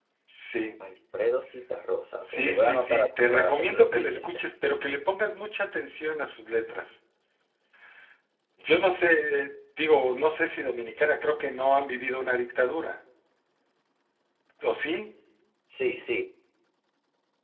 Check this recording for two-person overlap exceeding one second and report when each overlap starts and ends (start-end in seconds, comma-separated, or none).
2.2-4.3